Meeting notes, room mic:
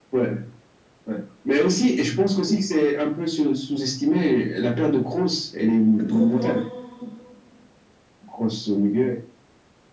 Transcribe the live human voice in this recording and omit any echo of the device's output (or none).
Il y a trop de noms. il y a trop de-